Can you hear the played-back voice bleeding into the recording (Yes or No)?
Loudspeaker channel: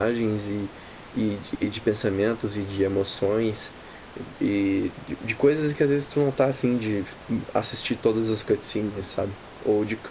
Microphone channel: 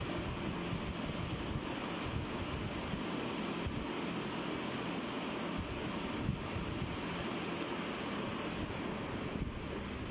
No